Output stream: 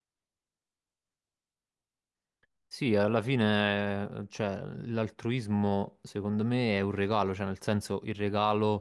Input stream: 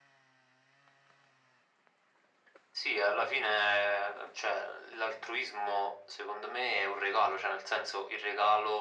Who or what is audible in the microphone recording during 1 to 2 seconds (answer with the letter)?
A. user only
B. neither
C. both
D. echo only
B